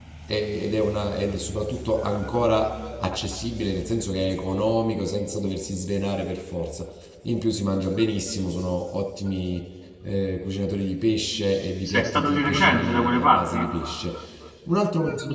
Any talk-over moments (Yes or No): Yes